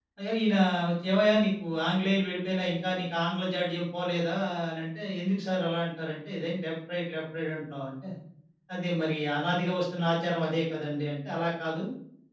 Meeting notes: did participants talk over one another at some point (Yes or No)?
No